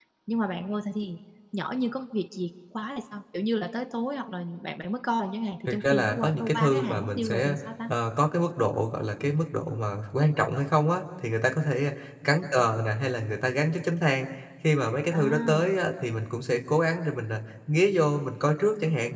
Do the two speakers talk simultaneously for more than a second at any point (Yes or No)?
Yes